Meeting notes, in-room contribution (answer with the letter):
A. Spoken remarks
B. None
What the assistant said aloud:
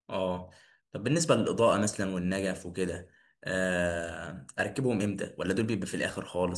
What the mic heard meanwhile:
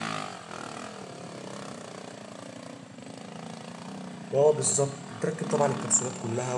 A